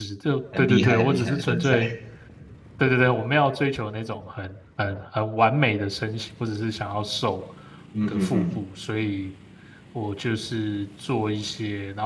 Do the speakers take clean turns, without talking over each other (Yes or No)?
No